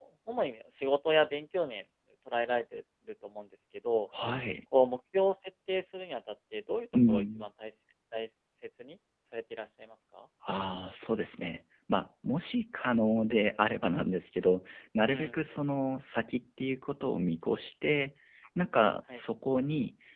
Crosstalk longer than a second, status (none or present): none